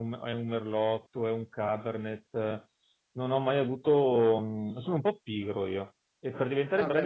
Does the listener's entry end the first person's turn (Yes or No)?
No